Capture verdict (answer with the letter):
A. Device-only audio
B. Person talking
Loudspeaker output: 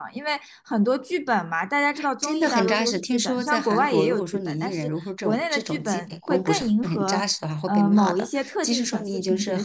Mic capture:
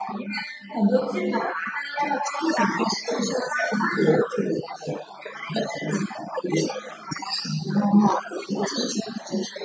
A